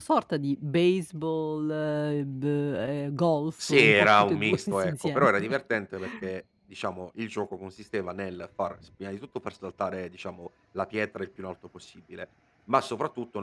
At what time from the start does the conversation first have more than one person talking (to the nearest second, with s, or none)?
4 s